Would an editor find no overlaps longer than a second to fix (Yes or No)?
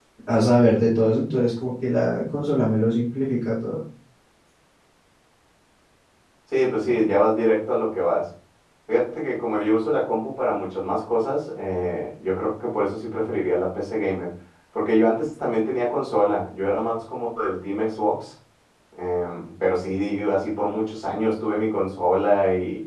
Yes